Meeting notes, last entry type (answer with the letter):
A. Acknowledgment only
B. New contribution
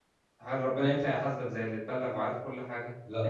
A